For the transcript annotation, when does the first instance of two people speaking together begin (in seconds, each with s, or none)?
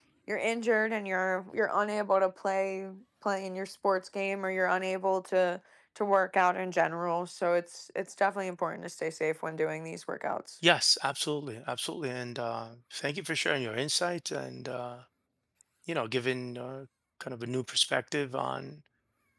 none